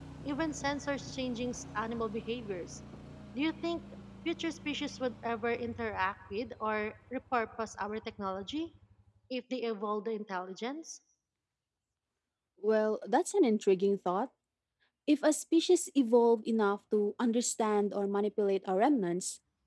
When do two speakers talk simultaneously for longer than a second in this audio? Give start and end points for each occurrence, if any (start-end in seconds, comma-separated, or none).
none